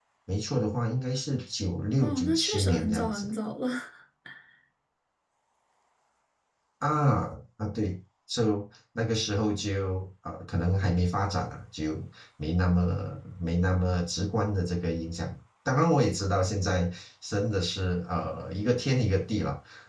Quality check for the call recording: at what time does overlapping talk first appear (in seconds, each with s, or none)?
2.0 s